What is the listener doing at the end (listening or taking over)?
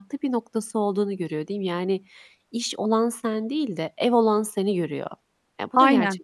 taking over